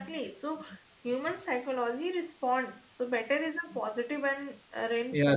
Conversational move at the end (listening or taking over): taking over